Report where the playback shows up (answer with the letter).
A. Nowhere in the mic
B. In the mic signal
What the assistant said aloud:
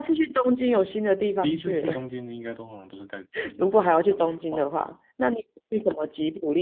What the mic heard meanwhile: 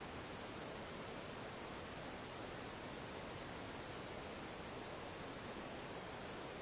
A